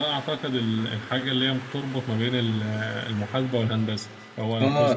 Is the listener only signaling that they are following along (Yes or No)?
No